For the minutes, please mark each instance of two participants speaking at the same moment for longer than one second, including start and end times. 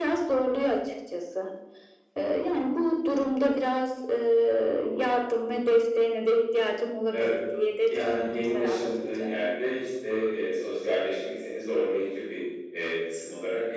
7.9-9.3

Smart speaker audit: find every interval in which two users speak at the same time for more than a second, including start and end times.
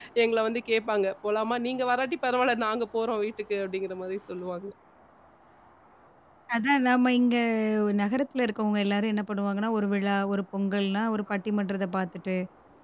none

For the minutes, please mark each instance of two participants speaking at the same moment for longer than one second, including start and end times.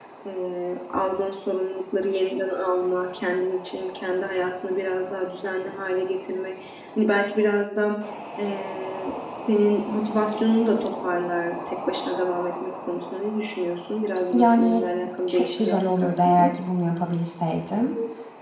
15.3-16.5

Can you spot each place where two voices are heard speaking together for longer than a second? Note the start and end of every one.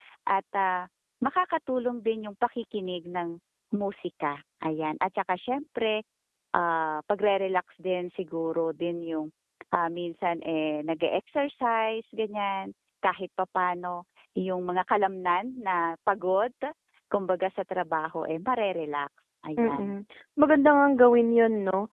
none

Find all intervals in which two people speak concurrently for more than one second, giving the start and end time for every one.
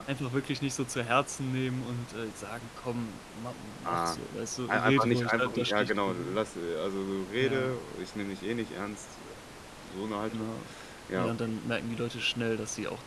4.7-6.4

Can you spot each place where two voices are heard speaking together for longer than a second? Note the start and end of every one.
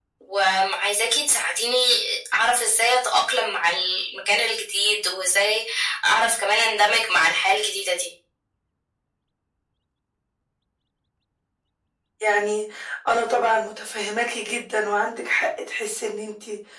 none

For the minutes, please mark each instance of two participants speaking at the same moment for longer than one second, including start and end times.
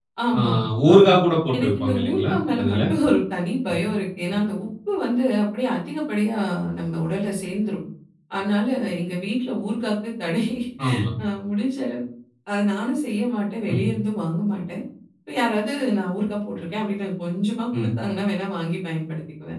1.5-2.8

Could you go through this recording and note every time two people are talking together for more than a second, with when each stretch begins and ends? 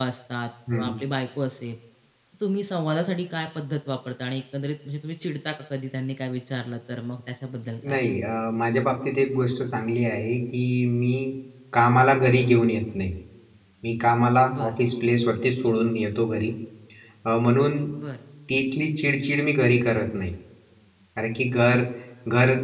none

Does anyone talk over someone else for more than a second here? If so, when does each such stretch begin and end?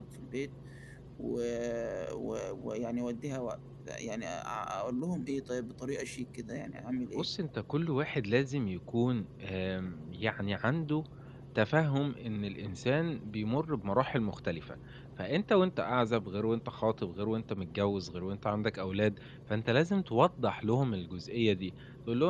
none

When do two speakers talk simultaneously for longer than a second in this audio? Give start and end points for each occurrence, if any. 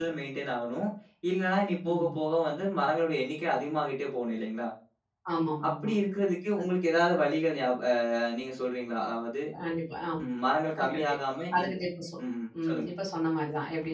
none

